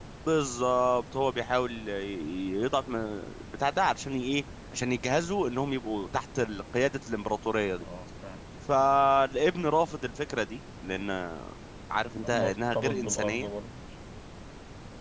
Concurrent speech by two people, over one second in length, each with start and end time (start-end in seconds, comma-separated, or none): 12.2-13.5